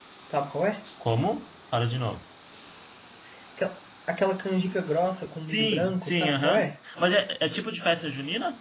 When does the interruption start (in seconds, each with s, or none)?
5.5 s